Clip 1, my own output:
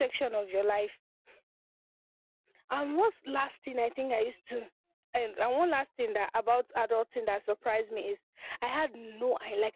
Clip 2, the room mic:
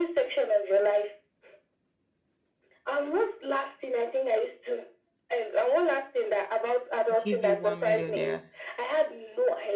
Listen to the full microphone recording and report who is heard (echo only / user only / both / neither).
both